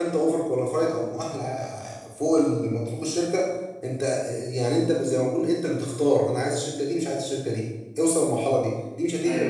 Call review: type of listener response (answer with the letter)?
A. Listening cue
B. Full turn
A